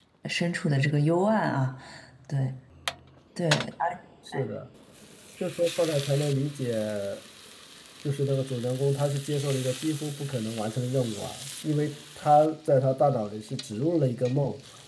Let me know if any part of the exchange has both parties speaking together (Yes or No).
No